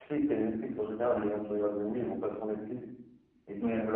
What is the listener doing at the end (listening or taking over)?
listening